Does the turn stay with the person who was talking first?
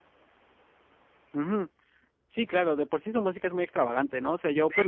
Yes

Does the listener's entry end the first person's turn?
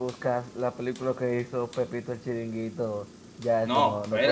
Yes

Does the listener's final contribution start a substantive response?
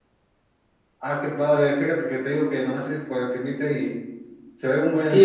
Yes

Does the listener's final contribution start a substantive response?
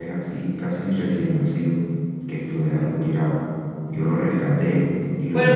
Yes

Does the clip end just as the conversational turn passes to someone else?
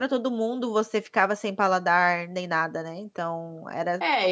Yes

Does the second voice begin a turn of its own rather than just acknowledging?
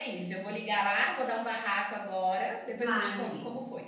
Yes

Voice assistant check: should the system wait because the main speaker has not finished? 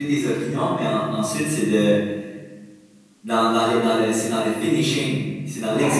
Yes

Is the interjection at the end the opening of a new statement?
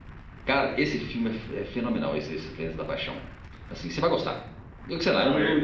No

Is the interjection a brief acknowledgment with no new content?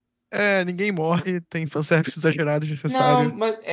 No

